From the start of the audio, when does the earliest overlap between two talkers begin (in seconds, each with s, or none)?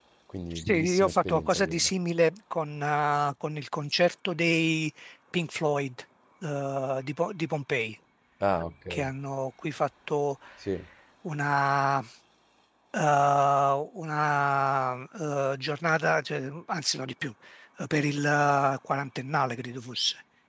0.5 s